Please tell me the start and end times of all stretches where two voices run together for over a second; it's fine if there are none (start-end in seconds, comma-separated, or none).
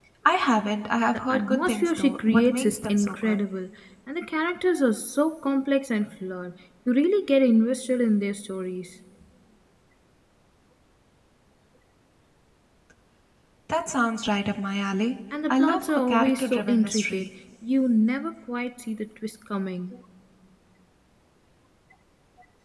1.1-3.4, 15.5-17.3